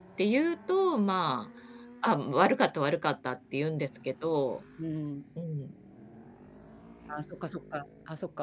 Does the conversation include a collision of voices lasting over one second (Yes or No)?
No